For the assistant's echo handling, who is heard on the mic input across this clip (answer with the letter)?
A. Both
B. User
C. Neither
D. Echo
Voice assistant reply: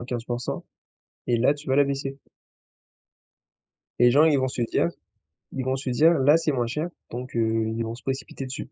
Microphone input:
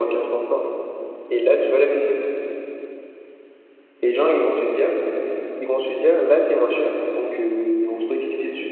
D